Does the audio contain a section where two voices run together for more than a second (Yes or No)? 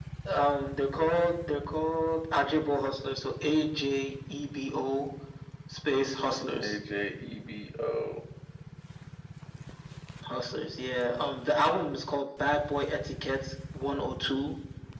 No